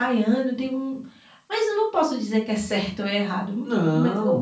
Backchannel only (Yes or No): Yes